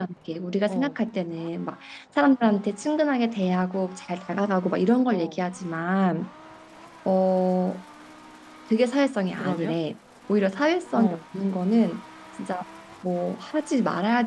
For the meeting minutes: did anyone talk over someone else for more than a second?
No

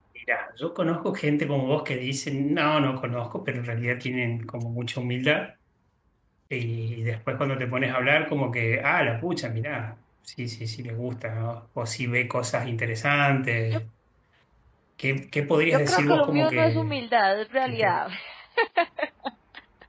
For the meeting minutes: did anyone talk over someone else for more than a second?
Yes, from 15.7 s

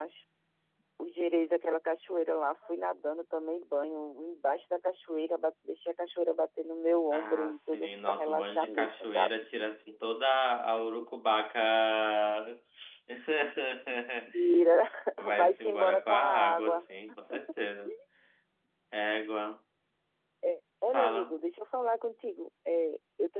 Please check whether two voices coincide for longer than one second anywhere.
Yes, from 7.1 s

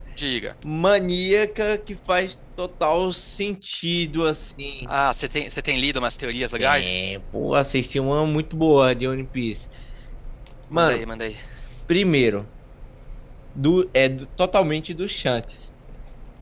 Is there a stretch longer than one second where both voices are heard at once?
No

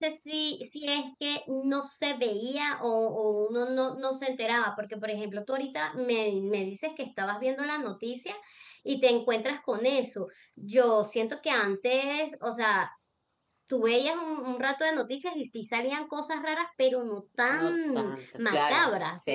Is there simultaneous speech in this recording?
Yes, from 17.5 s

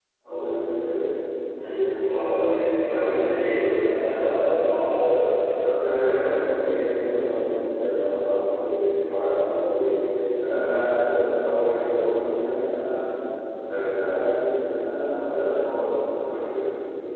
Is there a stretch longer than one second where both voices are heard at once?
Yes, from 2.8 s

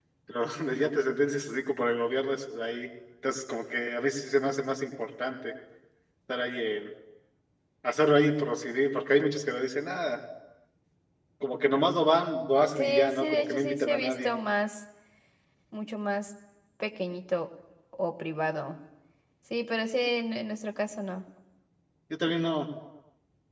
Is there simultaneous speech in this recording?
Yes, from 12.8 s

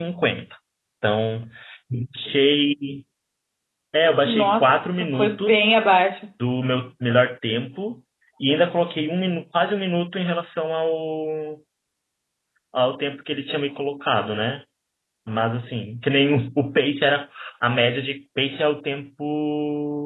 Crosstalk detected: Yes, from 4.2 s

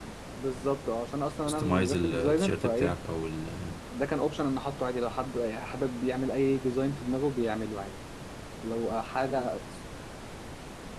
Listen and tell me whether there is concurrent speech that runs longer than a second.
Yes, from 1.5 s

